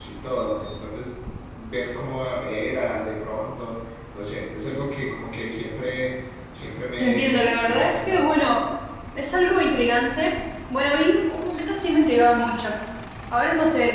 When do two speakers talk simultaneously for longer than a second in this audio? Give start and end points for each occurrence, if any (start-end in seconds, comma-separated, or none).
7.0-8.3